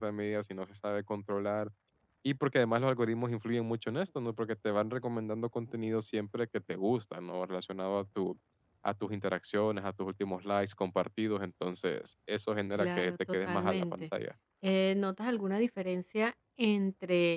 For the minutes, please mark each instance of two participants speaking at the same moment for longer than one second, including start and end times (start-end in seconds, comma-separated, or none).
12.7-14.0